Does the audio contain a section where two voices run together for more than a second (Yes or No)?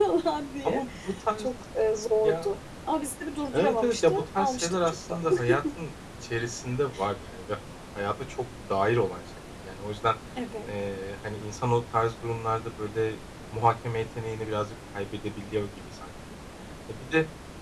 Yes